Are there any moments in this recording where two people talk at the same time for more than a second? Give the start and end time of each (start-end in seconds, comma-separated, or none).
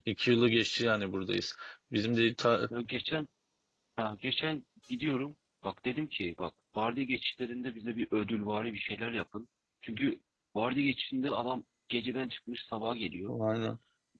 none